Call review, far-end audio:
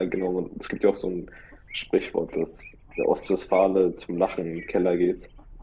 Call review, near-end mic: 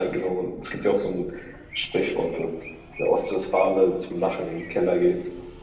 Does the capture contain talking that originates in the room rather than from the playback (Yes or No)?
No